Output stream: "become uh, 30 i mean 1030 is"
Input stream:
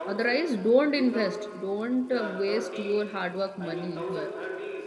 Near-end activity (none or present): present